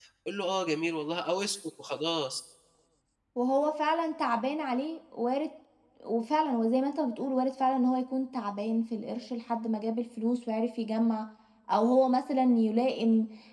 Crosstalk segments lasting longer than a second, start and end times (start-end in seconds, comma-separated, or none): none